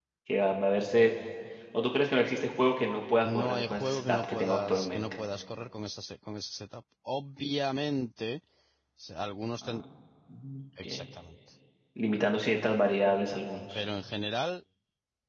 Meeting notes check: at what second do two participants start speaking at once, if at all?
3.2 s

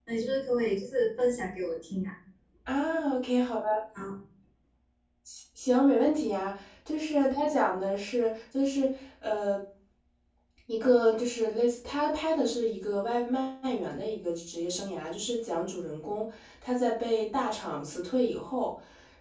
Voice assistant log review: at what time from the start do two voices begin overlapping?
none

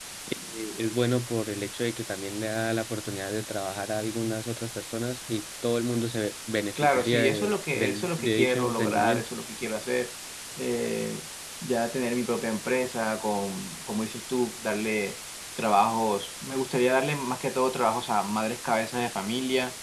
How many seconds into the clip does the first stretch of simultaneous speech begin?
6.8 s

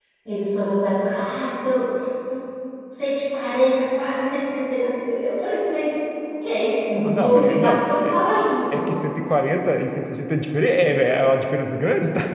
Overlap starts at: 6.9 s

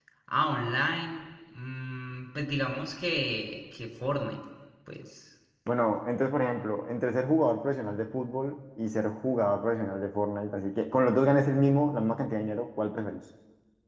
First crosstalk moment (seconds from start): none

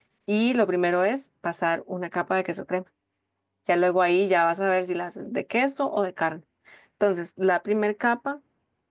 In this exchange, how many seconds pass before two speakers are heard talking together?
none

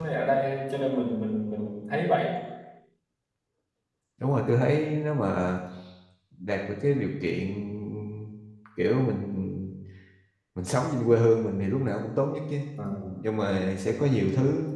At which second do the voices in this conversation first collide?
none

